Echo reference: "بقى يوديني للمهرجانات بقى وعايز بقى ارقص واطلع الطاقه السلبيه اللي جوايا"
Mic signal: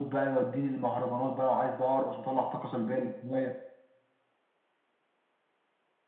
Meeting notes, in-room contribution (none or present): none